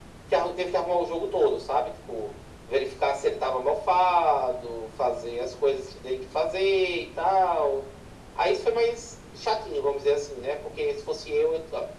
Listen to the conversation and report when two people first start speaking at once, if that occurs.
none

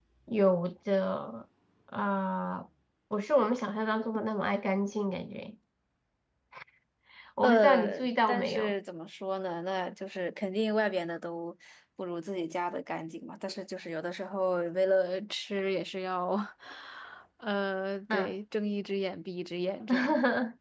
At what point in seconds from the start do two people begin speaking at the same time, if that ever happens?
7.4 s

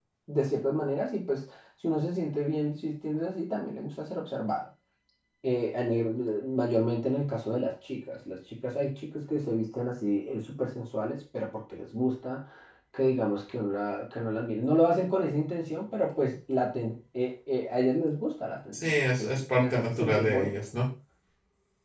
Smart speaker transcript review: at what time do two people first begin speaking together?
18.7 s

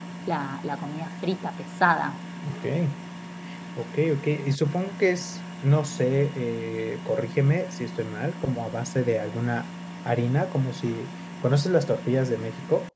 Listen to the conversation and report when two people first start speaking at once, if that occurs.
none

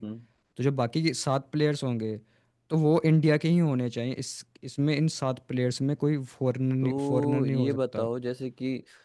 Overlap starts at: 6.8 s

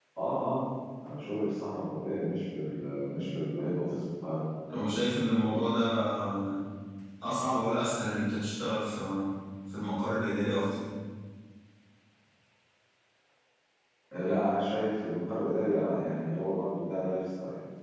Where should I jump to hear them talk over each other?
none

